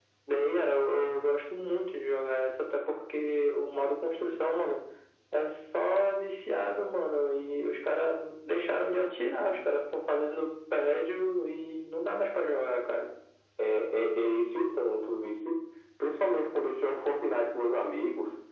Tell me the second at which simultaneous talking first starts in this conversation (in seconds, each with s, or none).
none